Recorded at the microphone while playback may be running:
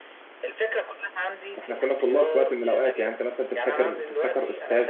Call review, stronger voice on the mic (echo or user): user